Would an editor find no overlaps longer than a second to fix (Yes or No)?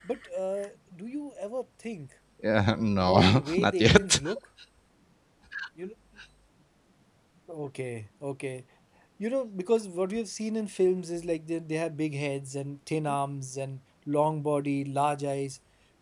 No